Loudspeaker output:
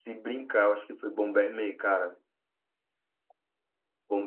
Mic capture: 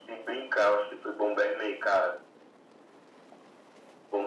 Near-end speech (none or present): none